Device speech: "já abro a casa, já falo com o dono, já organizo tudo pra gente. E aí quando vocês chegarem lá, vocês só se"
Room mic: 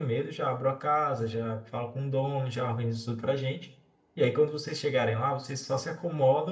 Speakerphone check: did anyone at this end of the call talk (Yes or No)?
No